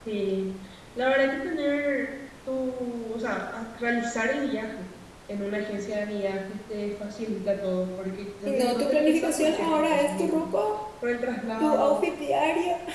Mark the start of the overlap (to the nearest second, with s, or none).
8 s